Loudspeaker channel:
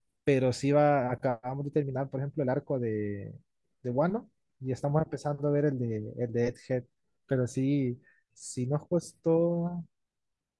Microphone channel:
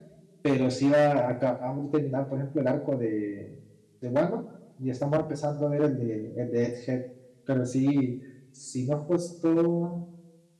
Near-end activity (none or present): none